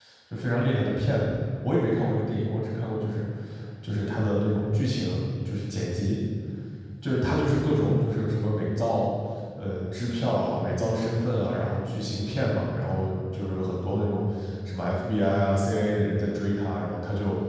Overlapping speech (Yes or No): No